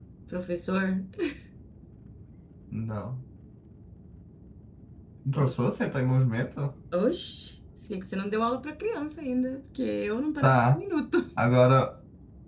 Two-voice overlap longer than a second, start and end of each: none

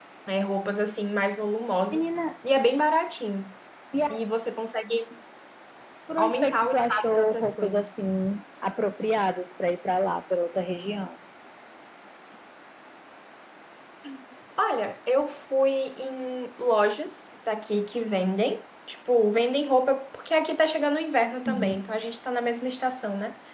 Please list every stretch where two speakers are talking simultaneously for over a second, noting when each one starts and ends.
6.2-7.9

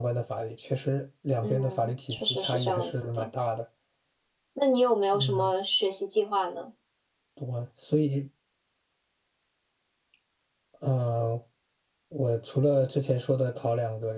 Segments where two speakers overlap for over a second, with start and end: 1.4-3.3

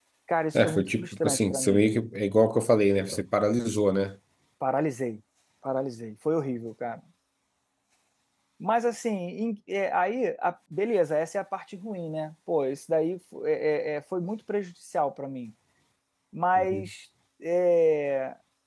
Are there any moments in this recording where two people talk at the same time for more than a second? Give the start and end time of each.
0.5-1.9

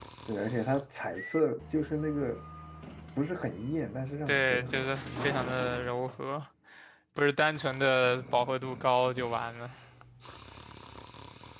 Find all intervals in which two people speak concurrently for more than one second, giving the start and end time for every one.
4.3-5.5

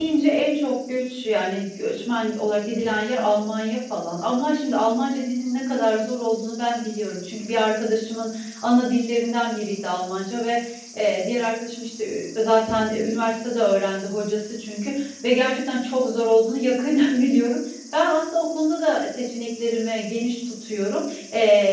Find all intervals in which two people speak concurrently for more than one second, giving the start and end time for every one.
none

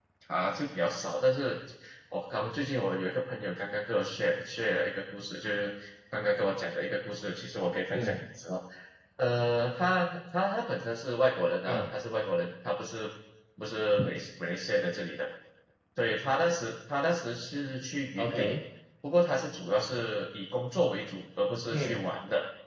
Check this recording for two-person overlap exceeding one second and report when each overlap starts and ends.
none

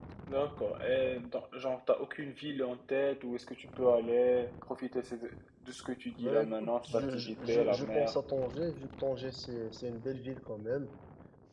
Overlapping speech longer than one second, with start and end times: 6.2-8.2

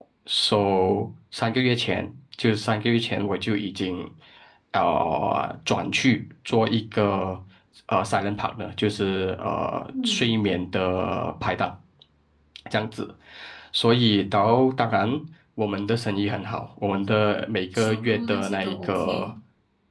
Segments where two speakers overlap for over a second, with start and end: 17.7-19.3

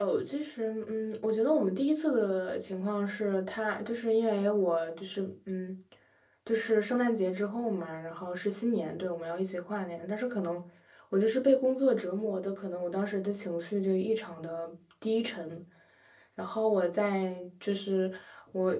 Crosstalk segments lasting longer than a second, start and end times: none

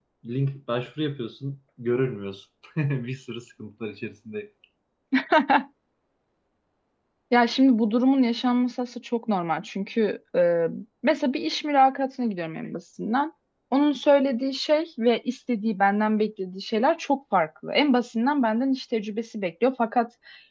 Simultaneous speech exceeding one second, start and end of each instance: none

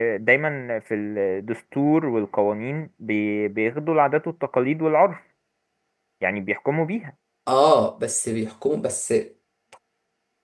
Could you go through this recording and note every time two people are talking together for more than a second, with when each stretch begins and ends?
none

